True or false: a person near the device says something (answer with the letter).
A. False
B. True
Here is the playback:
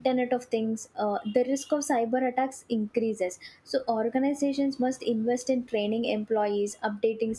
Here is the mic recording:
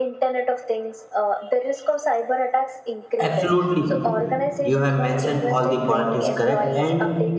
B